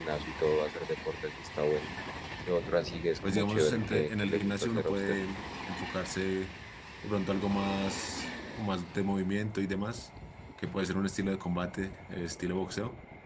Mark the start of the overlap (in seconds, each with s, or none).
3.3 s